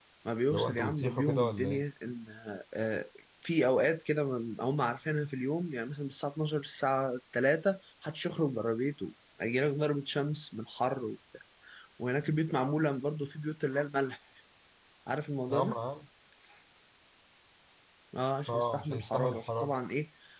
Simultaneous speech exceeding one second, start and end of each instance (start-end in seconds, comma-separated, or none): 0.5-1.8, 18.5-19.7